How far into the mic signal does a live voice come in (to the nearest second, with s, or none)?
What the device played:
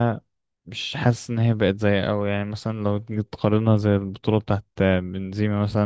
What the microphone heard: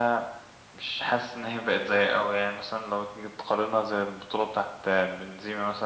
none